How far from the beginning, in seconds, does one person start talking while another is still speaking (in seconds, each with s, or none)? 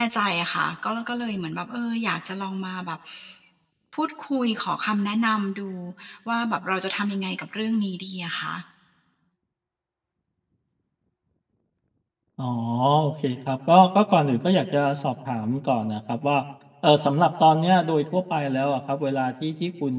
none